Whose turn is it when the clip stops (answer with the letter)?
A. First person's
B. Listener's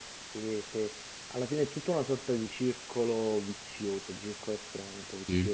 A